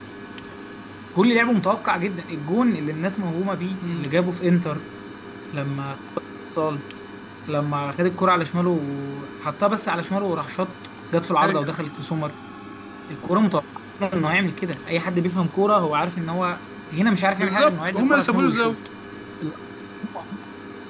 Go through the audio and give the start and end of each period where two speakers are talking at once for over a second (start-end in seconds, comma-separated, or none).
17.4-18.8